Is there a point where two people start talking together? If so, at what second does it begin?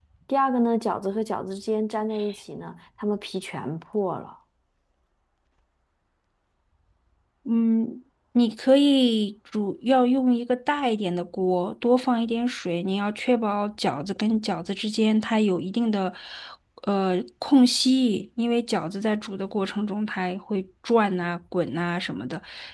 none

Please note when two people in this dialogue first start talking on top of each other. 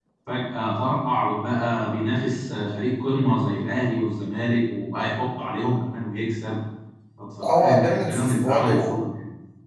7 s

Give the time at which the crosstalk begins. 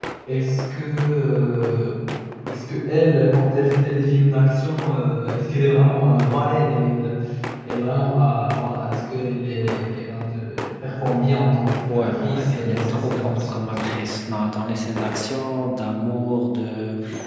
12 s

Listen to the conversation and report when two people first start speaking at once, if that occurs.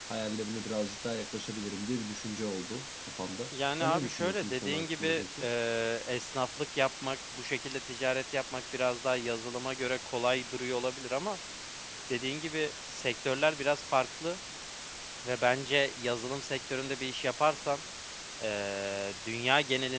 4 s

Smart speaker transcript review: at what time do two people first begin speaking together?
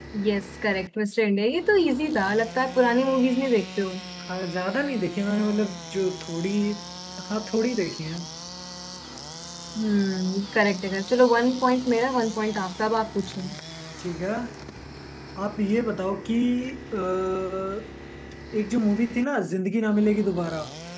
none

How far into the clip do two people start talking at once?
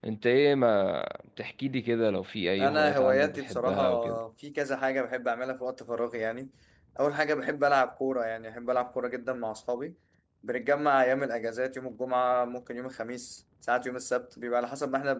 3 s

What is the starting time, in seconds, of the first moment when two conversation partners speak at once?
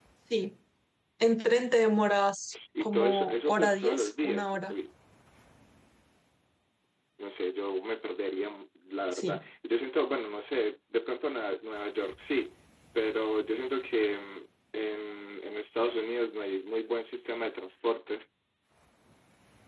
3 s

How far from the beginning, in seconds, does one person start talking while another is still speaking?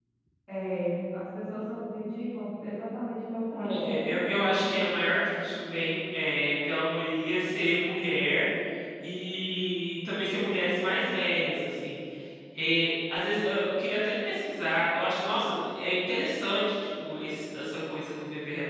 3 s

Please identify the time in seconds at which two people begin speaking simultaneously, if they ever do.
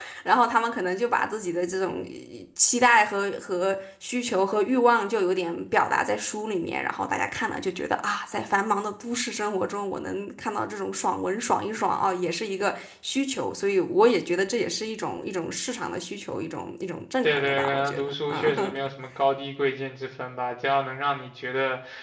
17 s

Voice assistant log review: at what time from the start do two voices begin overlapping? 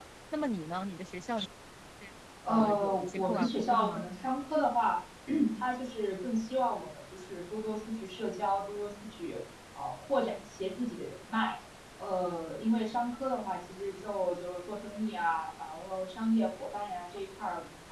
2 s

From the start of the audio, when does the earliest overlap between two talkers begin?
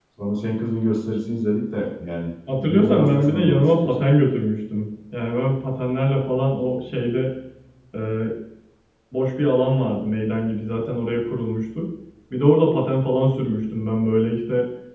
2 s

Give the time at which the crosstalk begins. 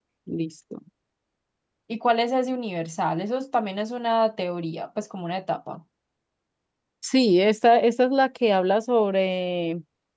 none

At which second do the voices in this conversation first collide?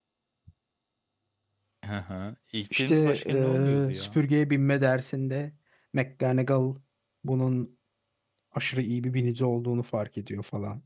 3 s

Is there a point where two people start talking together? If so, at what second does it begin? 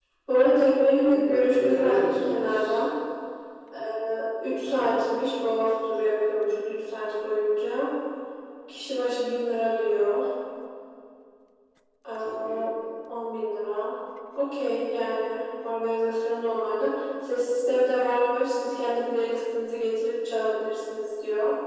1 s

